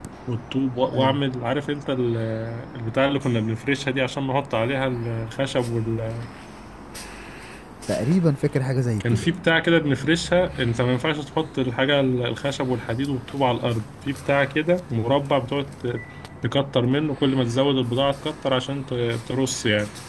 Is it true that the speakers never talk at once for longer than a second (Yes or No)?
Yes